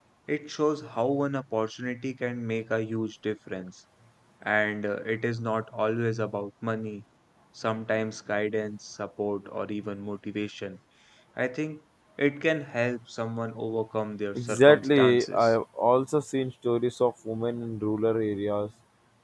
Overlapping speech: Yes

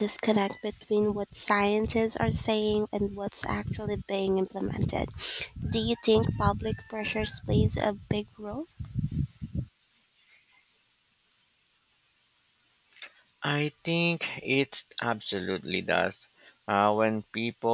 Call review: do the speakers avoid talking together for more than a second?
Yes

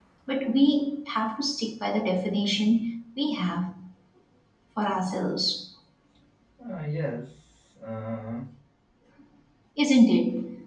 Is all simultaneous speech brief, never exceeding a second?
Yes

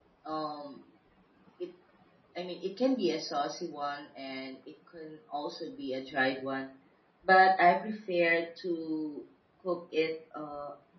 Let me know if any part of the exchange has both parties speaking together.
No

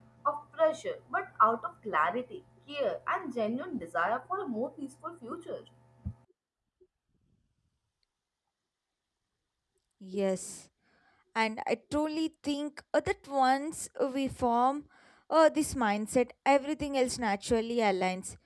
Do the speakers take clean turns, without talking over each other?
Yes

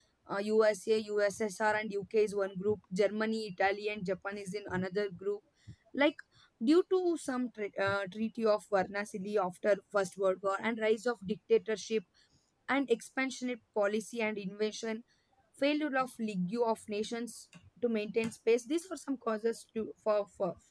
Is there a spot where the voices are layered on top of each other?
No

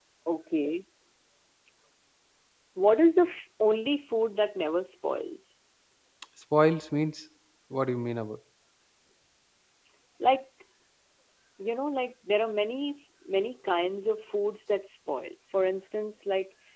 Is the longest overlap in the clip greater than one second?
No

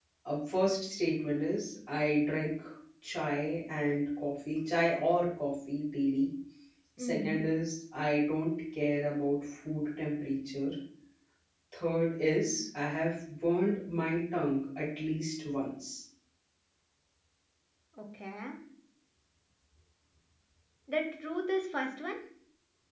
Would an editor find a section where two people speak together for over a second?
No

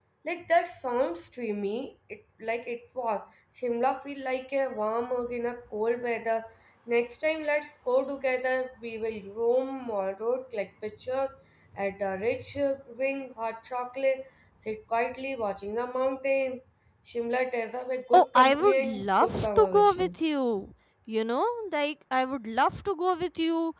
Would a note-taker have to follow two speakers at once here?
Yes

